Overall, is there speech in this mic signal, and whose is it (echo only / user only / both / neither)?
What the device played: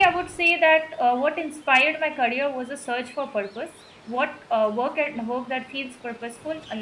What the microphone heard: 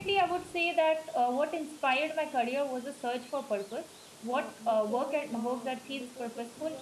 both